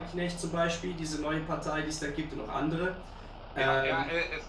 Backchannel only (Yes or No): No